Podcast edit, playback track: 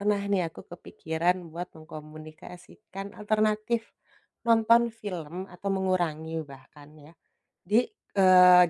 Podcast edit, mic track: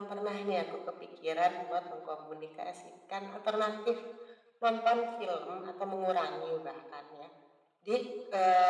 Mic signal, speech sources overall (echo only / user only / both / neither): echo only